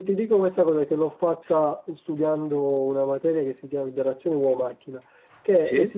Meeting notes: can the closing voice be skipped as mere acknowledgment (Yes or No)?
Yes